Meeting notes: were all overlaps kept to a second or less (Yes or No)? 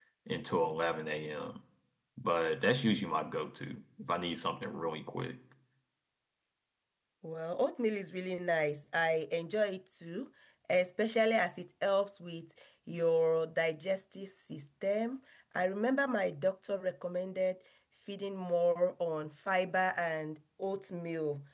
Yes